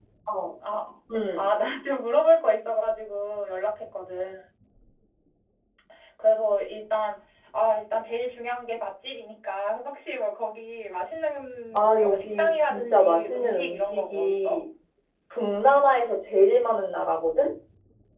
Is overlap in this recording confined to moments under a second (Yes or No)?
No